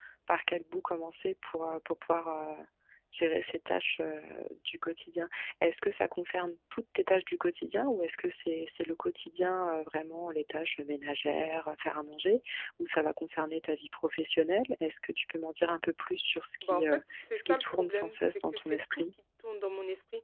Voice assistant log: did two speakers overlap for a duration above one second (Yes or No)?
Yes